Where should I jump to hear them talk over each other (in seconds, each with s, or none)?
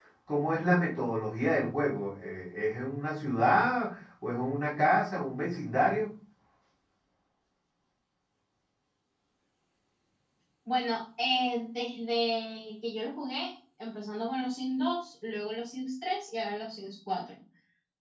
none